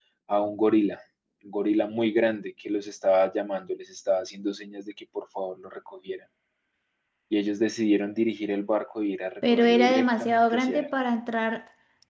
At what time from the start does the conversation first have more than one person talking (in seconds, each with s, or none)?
9.4 s